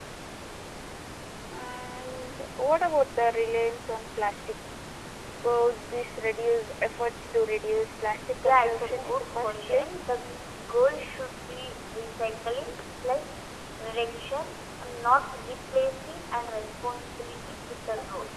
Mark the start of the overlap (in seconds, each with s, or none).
8.4 s